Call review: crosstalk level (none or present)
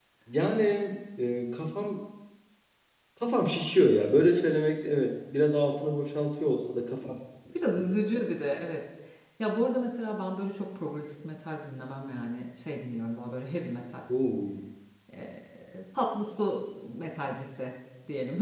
none